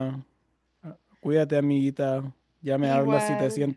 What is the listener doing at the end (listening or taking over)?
listening